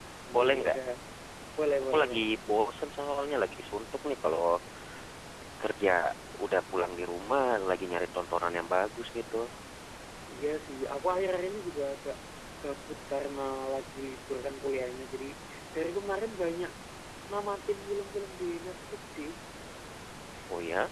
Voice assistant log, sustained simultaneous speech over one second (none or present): none